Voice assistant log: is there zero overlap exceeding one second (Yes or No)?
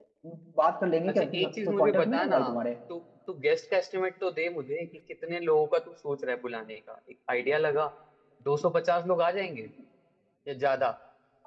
No